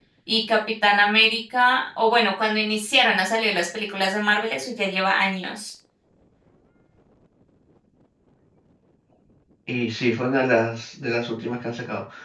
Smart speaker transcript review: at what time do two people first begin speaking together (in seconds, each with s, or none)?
none